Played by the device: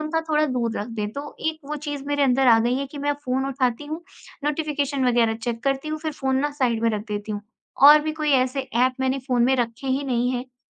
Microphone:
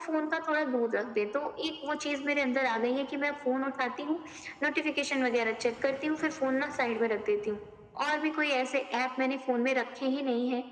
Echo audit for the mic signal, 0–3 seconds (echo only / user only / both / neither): echo only